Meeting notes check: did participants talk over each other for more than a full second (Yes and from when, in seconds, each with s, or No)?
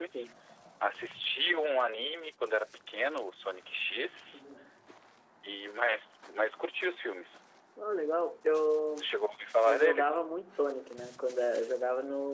No